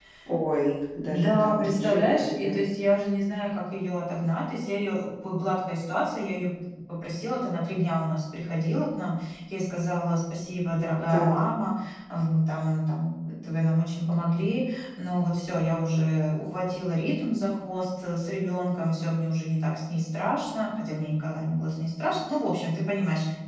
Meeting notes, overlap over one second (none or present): present